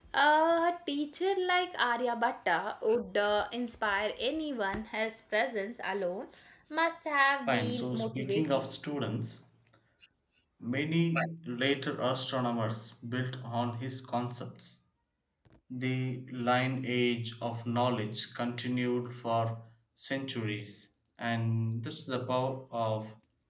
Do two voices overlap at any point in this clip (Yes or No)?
Yes